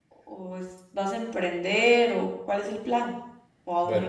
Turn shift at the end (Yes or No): Yes